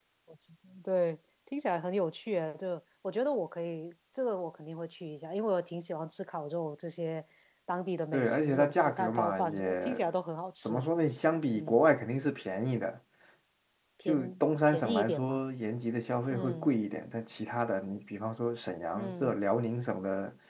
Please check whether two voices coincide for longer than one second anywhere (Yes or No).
Yes